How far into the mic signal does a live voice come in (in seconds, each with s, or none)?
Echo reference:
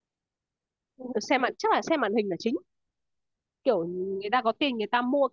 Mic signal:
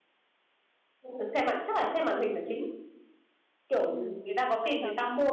3.9 s